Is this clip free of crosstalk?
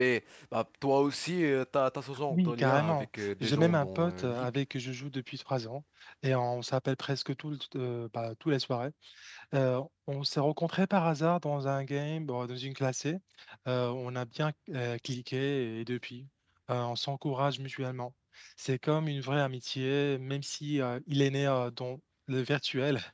No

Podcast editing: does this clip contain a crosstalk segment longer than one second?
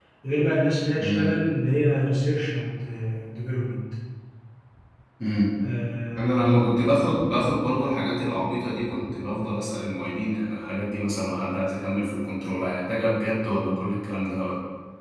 No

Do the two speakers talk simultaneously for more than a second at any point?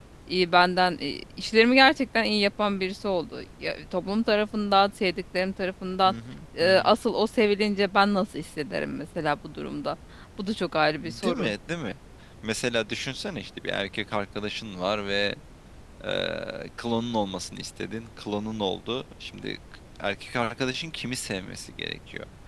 No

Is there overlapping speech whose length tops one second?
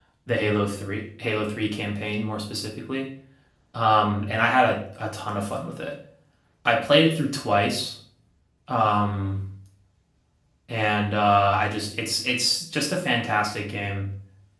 No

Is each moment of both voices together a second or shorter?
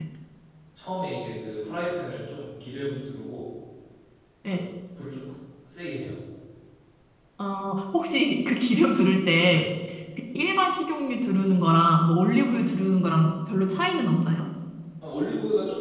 Yes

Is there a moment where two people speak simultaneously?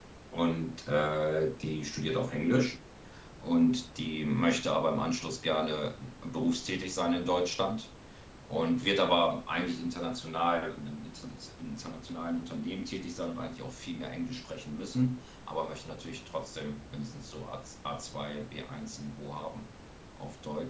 No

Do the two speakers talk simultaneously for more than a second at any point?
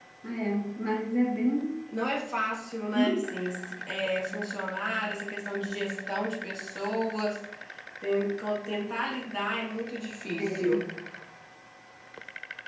No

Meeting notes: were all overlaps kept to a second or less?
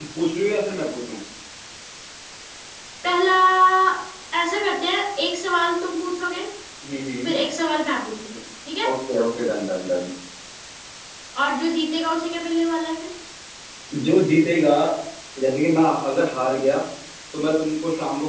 Yes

